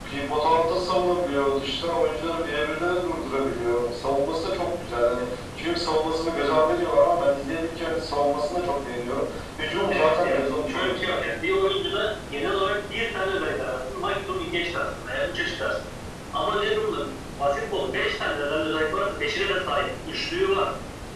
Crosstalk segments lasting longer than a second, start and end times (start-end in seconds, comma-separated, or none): 9.9-11.2